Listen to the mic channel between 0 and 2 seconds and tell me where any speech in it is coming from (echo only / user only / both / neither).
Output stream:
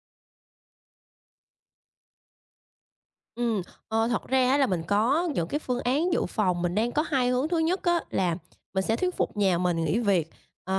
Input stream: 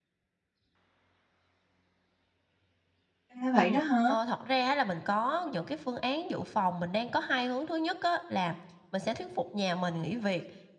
neither